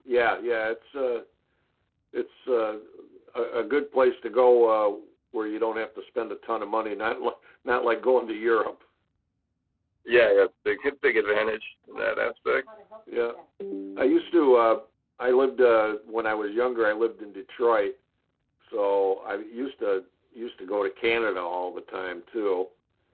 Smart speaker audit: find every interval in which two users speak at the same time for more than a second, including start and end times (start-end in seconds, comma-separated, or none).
none